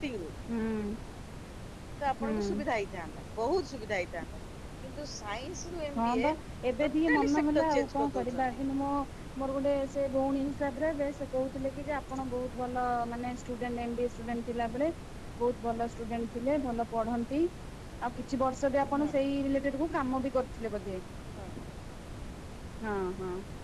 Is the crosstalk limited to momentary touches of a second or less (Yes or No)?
No